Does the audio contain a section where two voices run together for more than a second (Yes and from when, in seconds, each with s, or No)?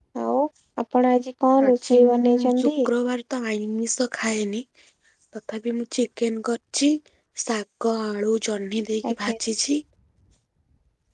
Yes, from 1.6 s